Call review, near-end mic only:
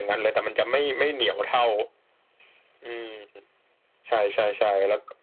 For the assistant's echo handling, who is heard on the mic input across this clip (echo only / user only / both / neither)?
echo only